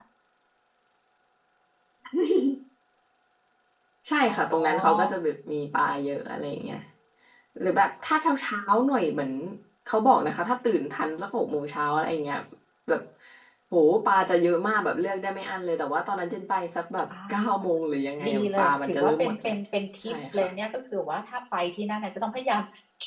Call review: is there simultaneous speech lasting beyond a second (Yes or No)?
Yes